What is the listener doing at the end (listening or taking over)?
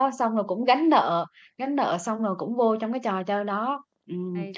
listening